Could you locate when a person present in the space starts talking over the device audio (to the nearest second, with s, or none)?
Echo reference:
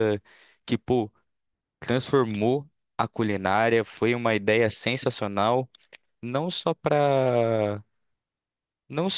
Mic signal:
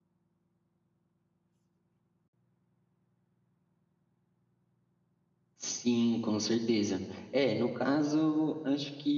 6 s